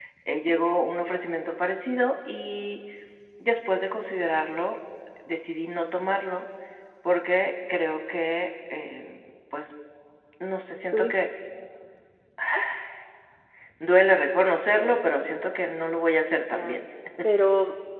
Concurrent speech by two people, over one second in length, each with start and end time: none

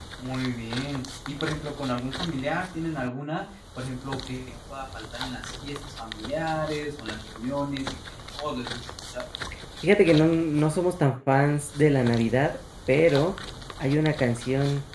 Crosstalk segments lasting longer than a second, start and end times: none

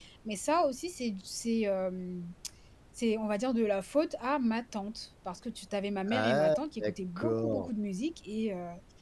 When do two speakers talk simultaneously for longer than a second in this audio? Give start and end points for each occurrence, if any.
6.1-7.7

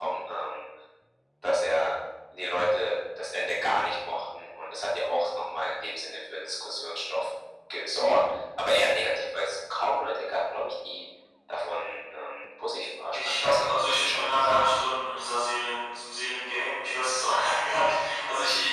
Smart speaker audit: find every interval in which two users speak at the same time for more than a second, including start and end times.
13.1-14.4

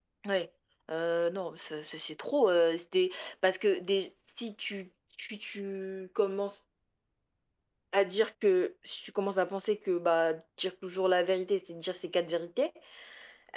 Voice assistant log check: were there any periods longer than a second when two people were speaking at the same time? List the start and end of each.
none

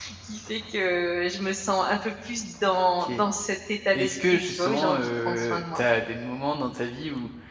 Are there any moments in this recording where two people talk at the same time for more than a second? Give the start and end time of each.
3.9-5.8

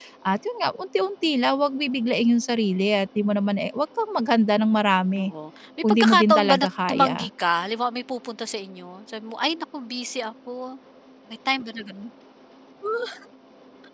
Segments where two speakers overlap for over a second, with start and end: 5.8-7.3

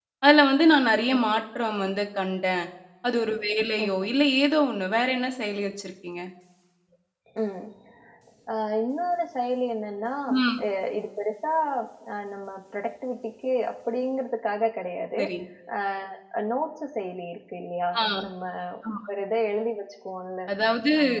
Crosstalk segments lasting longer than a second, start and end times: none

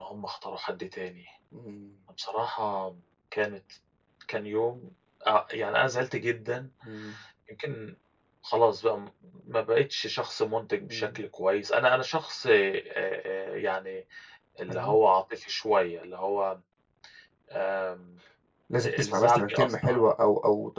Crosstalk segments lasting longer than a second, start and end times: 18.8-20.1

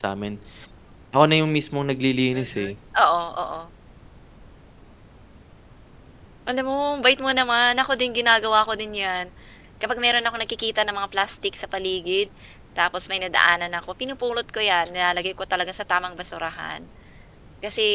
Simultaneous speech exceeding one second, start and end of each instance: none

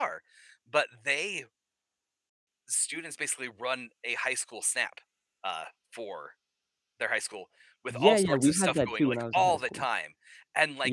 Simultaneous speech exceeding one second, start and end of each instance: 7.9-9.8

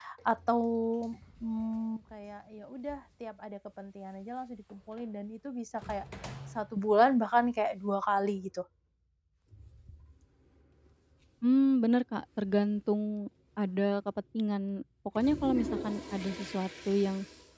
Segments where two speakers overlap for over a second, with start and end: none

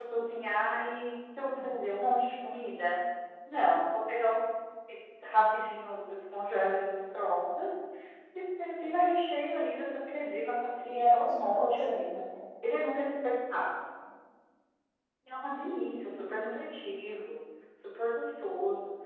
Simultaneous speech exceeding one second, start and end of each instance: 10.8-12.0

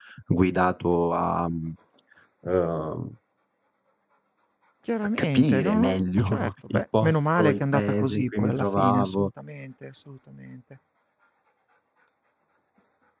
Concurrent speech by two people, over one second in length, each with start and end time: 5.2-9.3

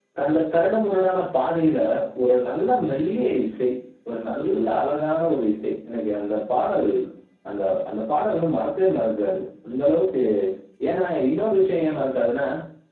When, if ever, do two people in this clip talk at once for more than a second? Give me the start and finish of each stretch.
none

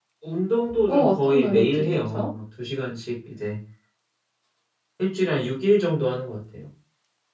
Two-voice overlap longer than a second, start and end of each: 0.9-2.3

